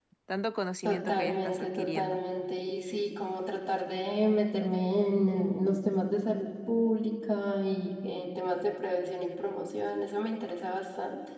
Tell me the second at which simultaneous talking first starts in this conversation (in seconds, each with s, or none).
0.8 s